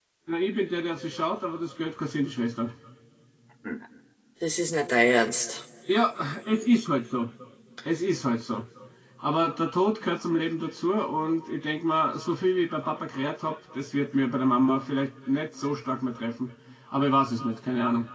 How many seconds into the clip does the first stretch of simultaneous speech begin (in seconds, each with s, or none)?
none